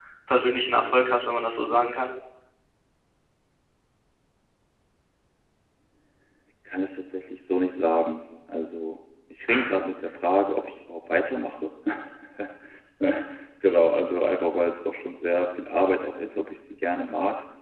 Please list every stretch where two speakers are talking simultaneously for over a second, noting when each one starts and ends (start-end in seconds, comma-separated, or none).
none